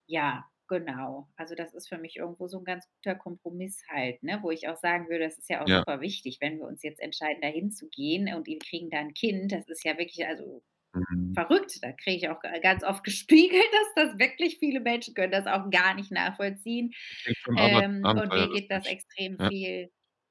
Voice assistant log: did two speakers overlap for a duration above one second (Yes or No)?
Yes